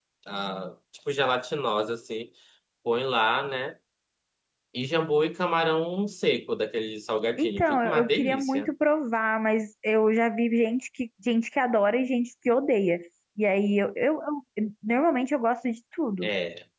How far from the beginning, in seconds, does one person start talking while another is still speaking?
7 s

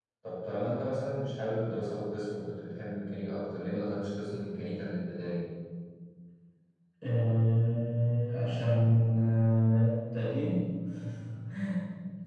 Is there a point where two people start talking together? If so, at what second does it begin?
none

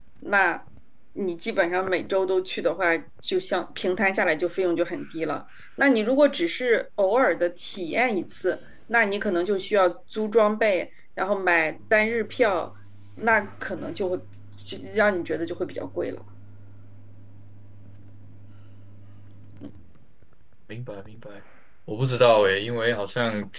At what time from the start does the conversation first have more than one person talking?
none

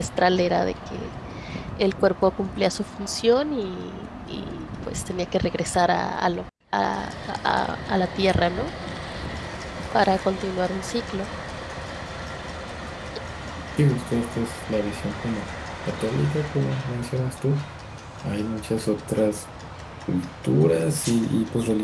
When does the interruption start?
none

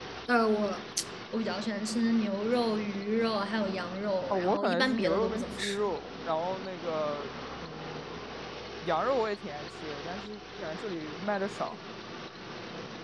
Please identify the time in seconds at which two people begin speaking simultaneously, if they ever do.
4 s

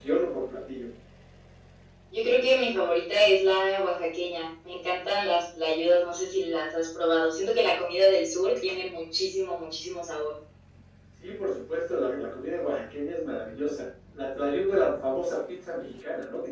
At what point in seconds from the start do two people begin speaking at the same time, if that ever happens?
none

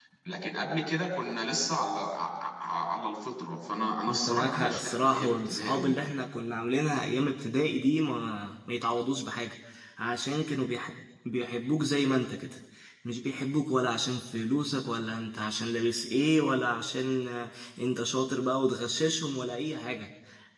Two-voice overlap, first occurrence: 4 s

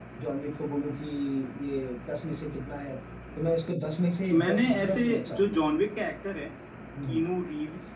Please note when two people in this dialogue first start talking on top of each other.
4 s

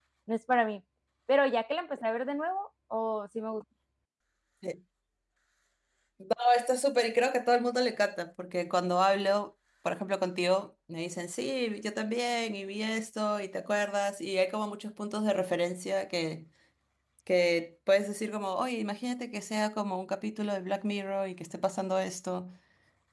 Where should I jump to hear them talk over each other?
none

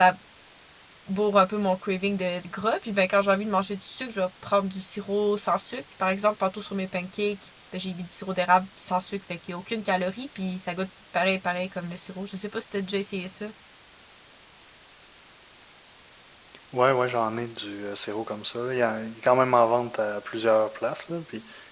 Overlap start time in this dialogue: none

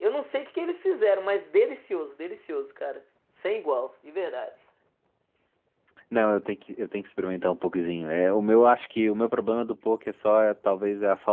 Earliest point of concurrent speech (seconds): none

